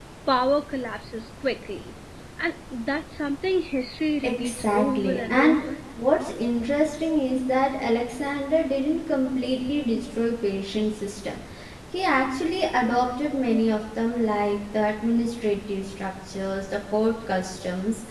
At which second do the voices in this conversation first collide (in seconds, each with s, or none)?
4.2 s